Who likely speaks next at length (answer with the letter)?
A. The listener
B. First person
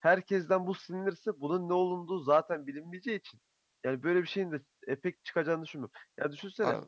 B